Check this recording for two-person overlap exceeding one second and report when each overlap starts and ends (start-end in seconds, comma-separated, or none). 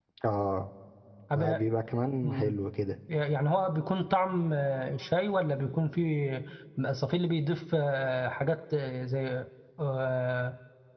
none